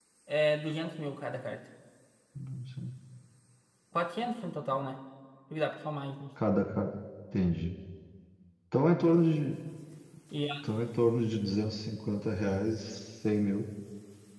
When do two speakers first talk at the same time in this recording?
none

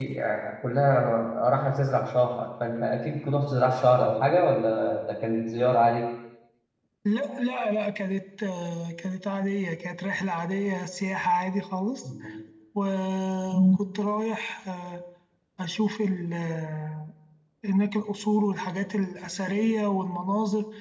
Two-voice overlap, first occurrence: none

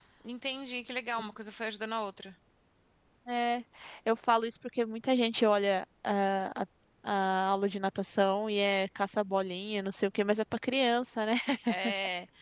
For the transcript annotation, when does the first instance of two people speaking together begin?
none

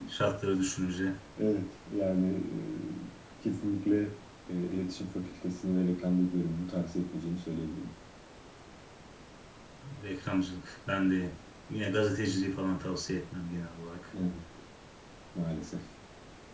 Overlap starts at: none

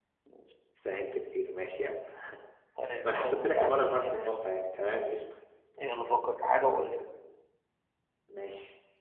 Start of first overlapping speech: 3.0 s

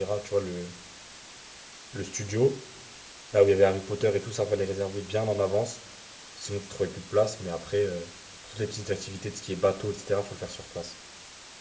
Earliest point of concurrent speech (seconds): none

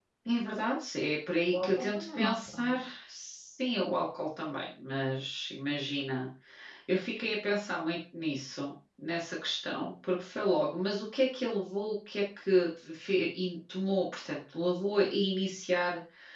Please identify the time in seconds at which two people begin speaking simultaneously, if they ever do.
1.5 s

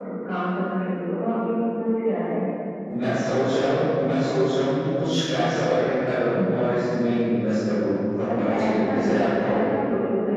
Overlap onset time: 8.3 s

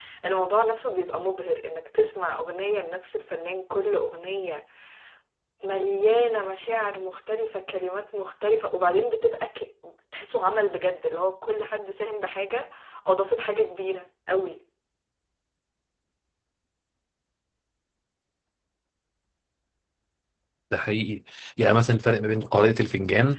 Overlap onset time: none

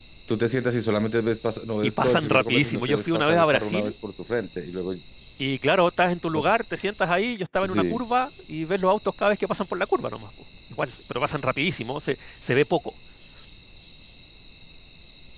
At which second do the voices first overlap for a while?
2.0 s

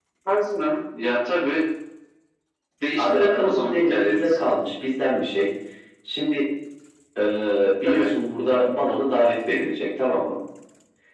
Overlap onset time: 3.0 s

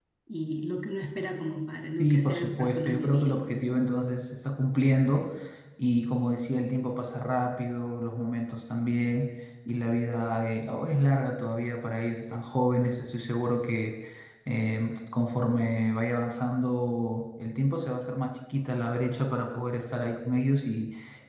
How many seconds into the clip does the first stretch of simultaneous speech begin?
2.0 s

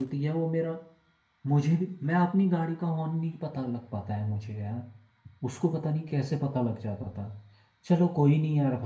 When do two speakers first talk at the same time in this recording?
none

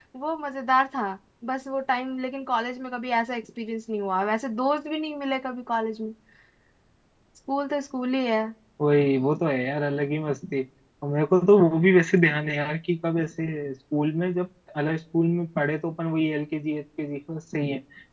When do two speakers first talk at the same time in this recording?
none

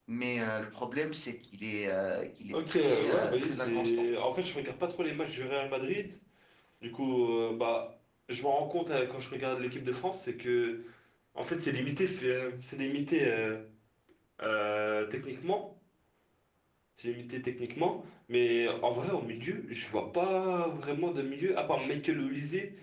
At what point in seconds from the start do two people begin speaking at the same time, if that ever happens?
2.5 s

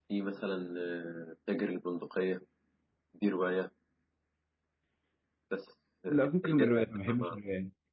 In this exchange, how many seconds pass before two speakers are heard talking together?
6.1 s

